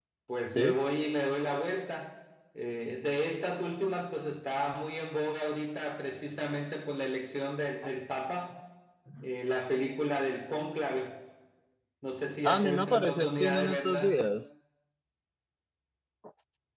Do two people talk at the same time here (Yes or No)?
Yes